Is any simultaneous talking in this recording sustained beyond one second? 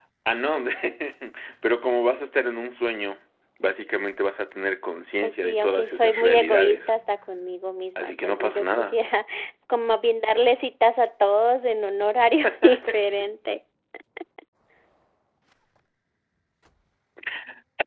Yes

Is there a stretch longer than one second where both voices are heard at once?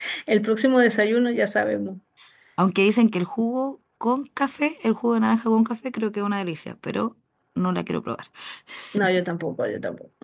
No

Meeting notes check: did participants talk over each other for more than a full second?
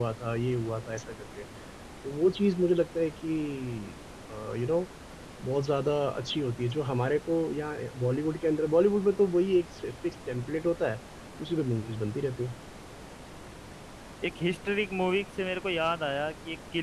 No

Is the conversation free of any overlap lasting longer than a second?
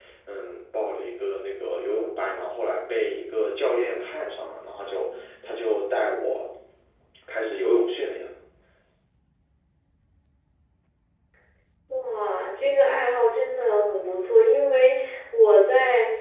Yes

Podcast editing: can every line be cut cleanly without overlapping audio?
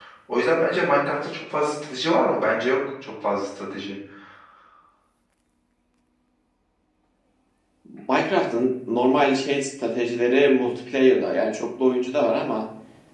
Yes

